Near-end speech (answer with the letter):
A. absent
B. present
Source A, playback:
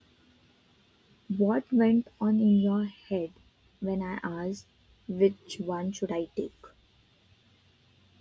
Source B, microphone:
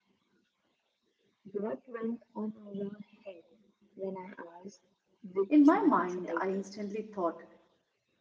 B